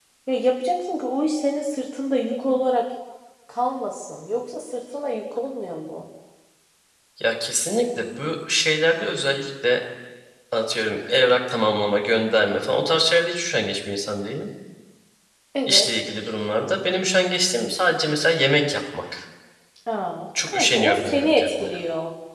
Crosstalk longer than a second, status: present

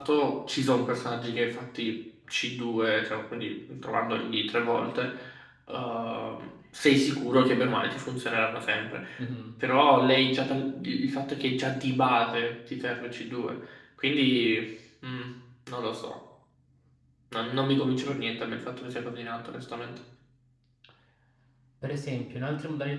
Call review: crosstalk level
none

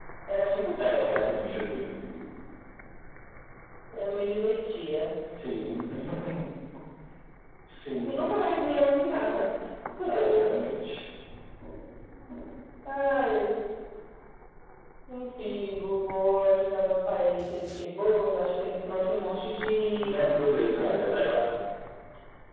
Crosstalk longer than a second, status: present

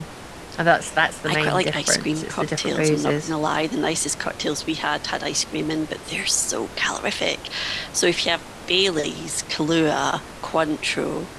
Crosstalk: present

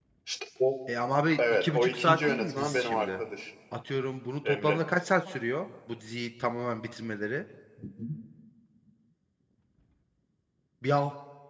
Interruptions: present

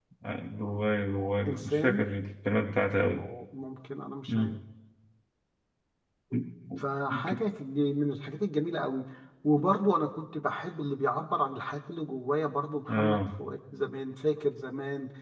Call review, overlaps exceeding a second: none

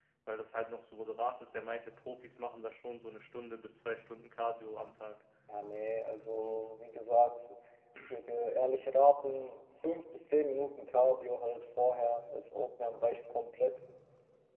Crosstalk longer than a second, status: none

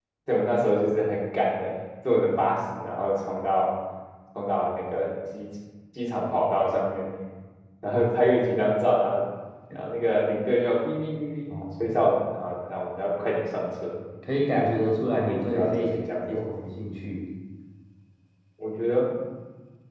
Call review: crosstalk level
present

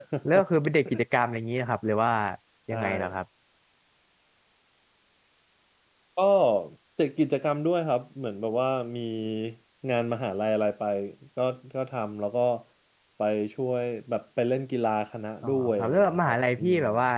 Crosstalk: present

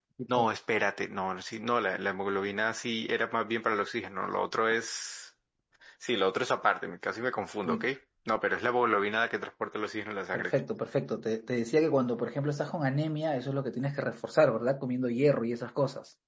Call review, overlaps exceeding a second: none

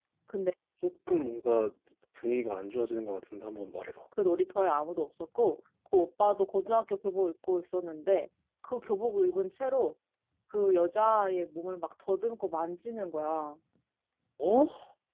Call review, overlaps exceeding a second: none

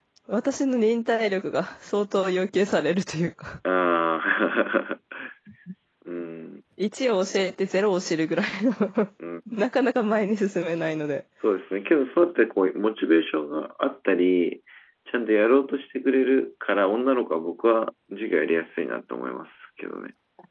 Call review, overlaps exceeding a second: none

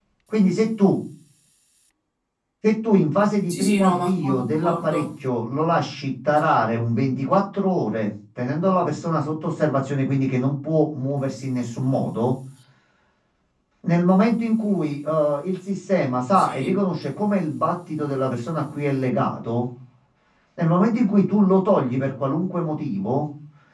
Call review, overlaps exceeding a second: present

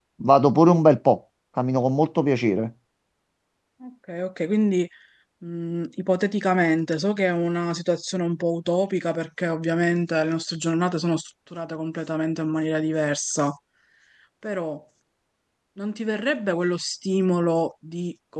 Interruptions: none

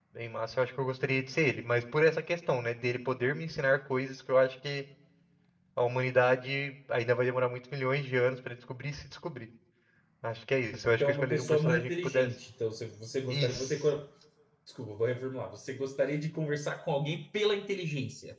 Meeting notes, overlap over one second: present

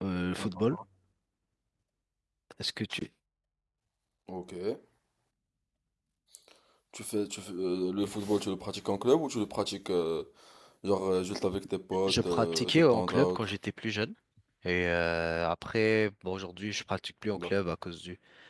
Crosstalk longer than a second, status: present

